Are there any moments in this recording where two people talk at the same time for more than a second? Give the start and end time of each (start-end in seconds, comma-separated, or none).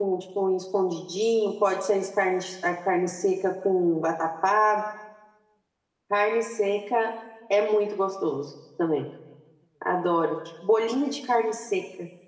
none